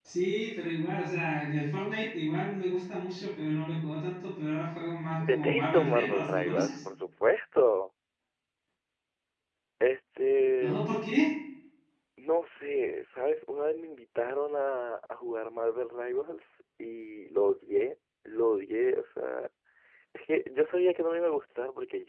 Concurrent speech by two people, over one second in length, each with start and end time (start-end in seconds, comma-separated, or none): 5.2-6.8